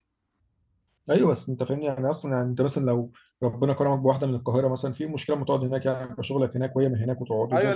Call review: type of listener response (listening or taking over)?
taking over